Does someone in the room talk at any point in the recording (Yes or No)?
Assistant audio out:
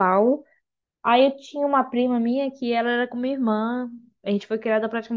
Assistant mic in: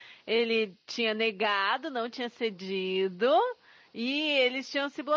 Yes